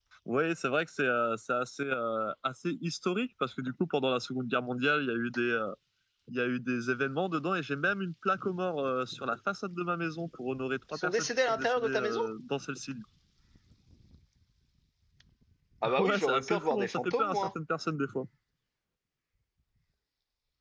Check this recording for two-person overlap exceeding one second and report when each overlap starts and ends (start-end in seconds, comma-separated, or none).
11.0-12.2, 16.0-17.5